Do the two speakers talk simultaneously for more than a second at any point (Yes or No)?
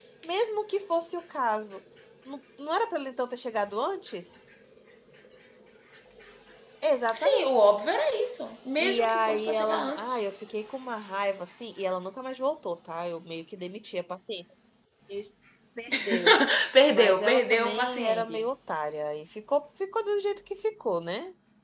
Yes